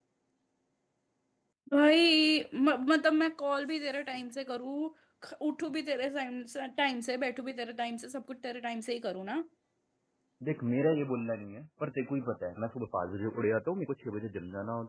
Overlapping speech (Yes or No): No